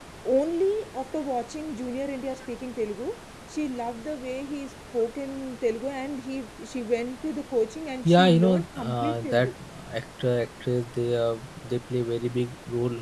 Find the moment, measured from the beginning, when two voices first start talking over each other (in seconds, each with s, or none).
8.0 s